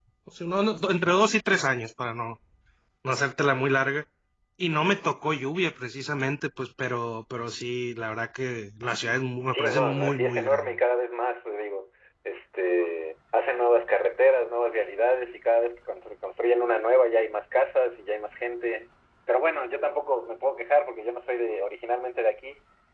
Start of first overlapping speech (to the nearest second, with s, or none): 10 s